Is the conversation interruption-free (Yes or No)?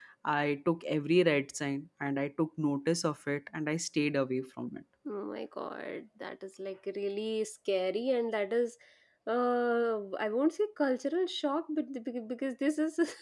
Yes